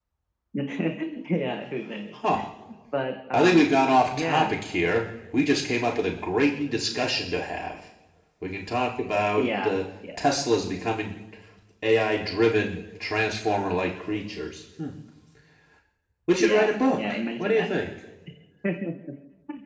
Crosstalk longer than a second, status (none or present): present